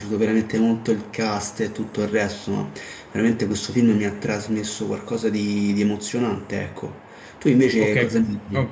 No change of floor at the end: No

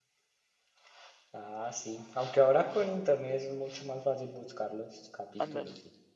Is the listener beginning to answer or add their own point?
Yes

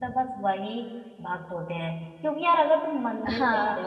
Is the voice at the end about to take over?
No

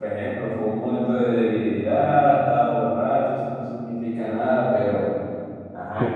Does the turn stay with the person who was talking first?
No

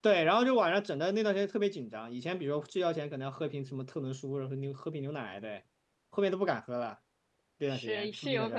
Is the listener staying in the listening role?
No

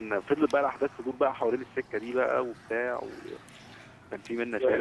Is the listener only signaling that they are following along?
No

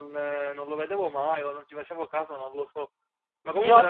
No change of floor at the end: Yes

